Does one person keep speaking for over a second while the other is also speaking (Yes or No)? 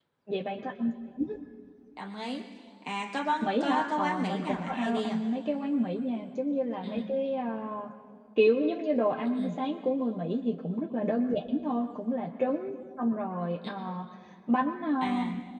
Yes